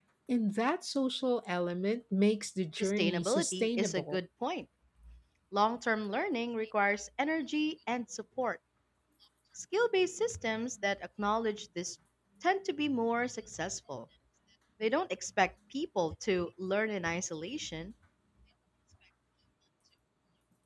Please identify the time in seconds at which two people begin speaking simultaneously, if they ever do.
2.8 s

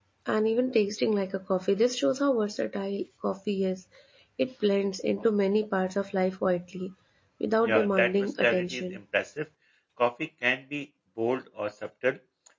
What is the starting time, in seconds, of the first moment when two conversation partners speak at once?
7.6 s

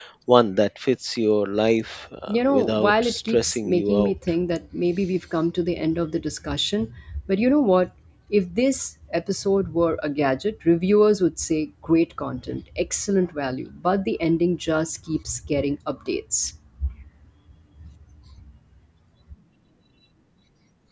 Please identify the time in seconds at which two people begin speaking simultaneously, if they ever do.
2.3 s

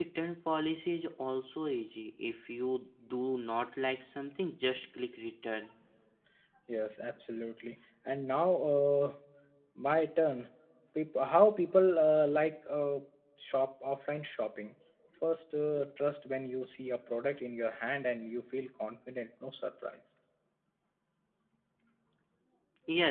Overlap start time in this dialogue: none

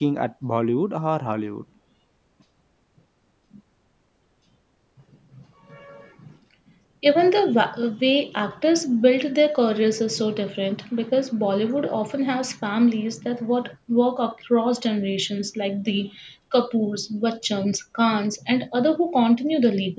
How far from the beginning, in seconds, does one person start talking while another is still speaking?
none

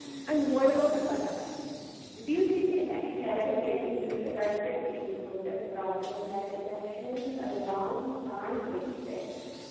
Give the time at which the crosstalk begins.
3.2 s

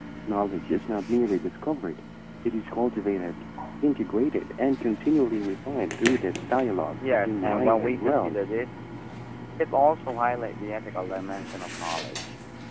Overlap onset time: 7.0 s

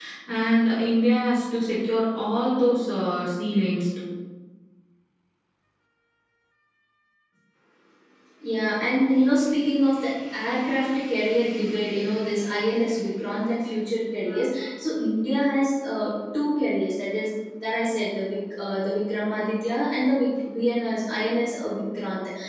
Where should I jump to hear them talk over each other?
none

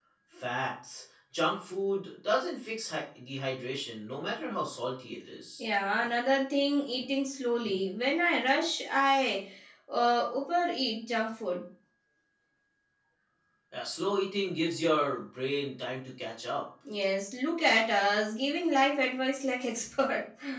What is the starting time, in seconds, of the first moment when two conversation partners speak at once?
none

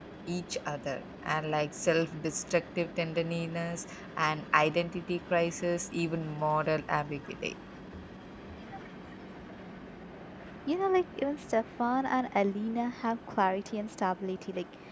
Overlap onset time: none

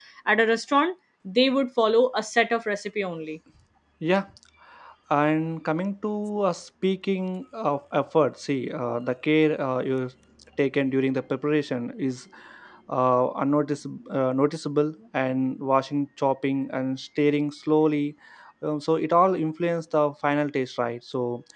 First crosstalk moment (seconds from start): none

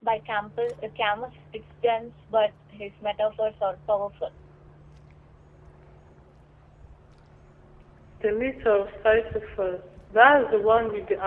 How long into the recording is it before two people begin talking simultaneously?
none

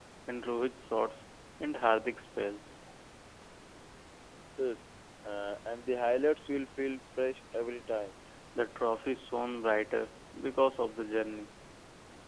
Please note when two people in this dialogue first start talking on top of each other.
none

